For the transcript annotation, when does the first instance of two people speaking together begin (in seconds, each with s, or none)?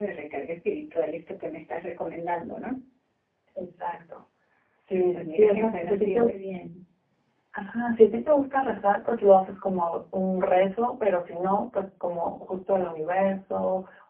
4.9 s